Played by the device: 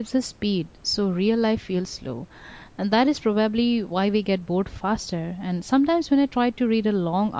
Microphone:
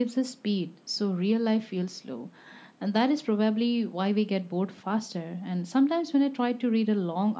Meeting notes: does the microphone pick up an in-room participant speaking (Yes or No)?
No